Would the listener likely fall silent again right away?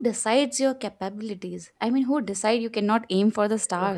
No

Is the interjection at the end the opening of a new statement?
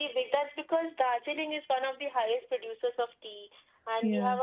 No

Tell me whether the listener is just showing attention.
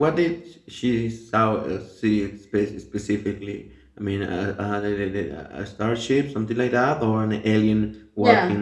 No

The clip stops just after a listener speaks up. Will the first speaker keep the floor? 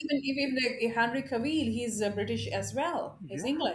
No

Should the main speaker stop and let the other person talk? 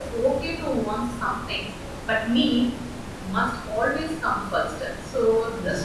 No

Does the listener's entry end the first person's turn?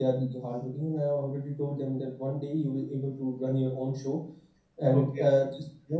No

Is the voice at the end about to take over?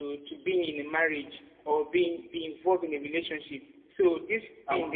Yes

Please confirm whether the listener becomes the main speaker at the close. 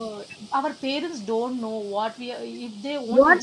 Yes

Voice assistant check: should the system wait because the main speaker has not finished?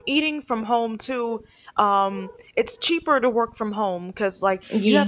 Yes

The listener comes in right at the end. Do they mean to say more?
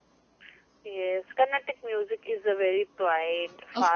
Yes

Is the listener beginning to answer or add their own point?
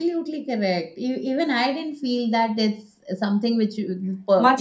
Yes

